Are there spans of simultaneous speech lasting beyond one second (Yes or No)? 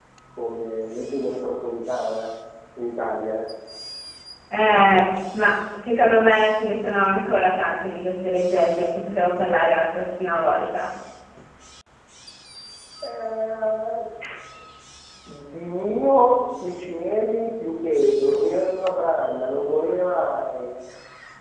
No